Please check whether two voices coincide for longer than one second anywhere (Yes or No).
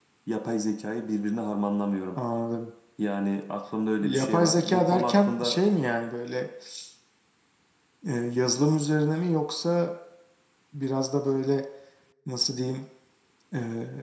Yes